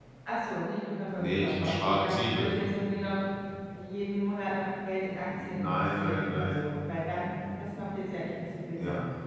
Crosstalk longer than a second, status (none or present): present